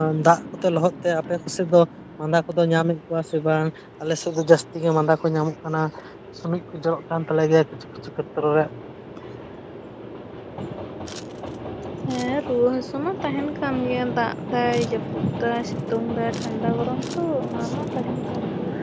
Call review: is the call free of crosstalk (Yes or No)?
Yes